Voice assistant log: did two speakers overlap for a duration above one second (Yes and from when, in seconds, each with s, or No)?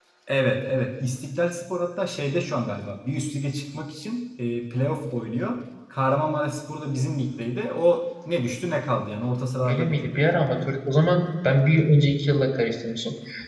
No